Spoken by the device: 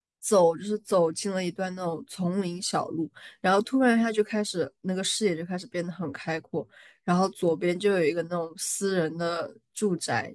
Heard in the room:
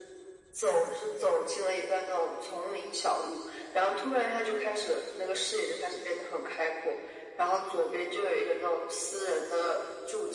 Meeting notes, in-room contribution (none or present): none